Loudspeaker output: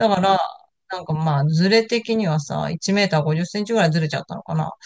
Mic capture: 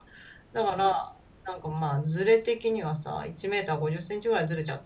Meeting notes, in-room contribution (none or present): none